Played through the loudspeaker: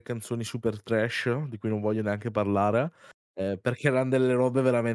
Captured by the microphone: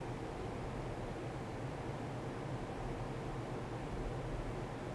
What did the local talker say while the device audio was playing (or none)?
none